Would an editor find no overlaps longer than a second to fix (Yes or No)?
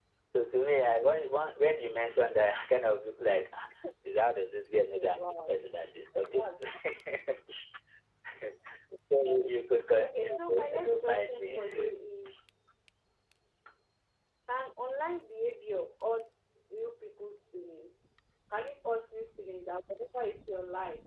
No